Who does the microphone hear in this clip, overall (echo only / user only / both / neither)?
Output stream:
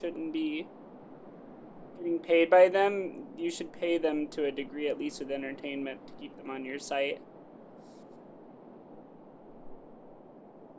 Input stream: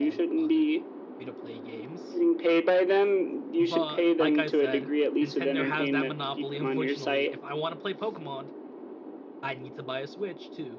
both